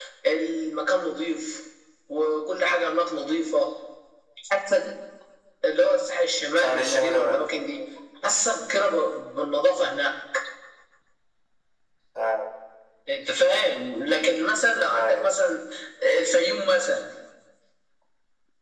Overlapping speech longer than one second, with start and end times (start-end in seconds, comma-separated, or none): 6.6-7.8